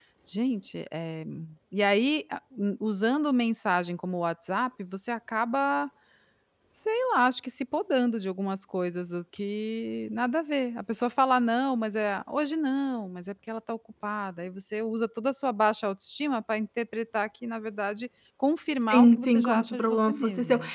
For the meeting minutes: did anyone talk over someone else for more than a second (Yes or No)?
Yes